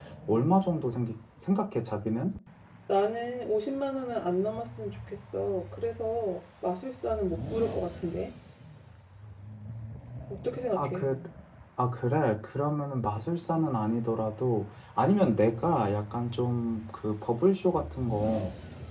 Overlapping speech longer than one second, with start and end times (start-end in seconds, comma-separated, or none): none